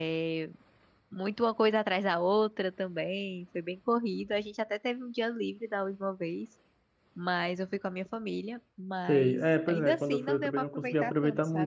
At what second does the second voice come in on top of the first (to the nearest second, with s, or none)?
9 s